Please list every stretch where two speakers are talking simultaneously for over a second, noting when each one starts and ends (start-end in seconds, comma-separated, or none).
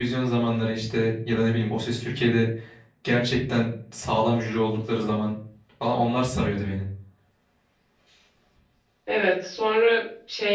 none